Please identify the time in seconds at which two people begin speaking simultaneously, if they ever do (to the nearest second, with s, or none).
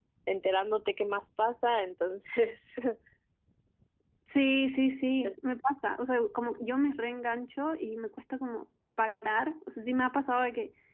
none